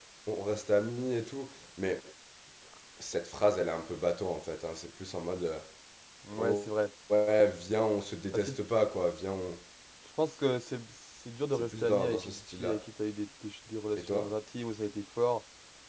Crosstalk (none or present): present